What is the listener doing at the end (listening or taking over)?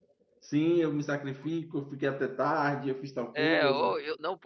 taking over